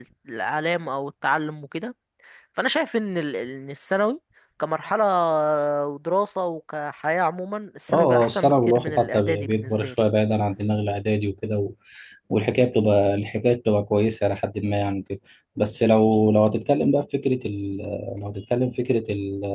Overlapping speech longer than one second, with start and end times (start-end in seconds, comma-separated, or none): 7.9-9.9